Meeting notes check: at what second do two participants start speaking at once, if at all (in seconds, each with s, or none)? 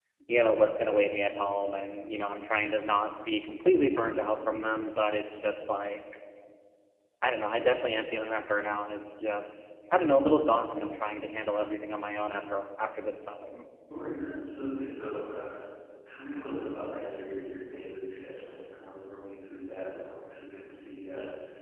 none